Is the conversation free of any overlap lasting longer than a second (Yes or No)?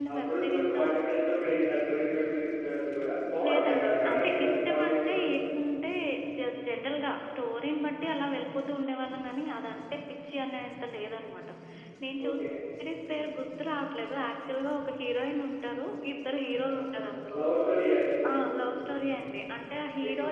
No